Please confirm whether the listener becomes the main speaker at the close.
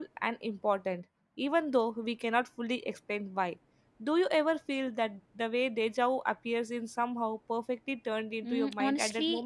Yes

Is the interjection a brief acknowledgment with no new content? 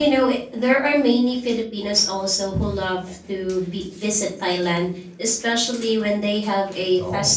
Yes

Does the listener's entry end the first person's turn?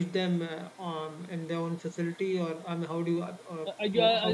Yes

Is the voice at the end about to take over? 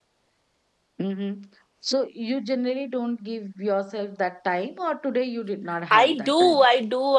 Yes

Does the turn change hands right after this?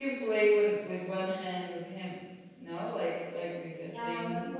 Yes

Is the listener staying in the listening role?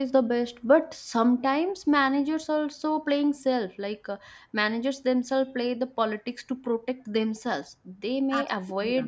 Yes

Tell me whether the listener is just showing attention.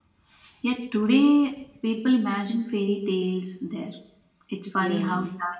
Yes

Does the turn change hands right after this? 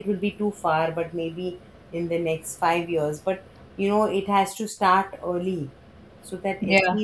No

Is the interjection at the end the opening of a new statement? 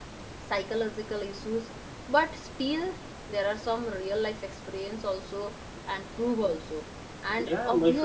Yes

